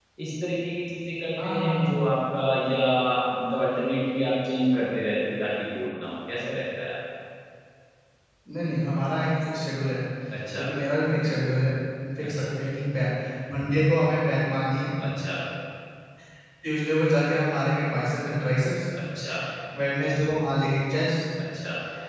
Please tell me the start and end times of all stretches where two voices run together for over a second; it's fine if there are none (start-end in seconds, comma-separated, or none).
none